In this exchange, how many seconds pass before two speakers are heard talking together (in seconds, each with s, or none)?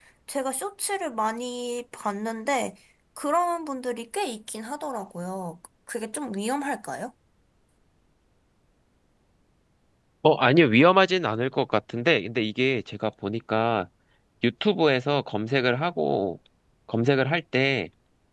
none